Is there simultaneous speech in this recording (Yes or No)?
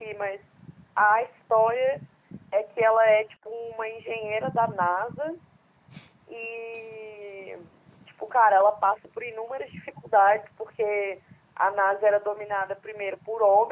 No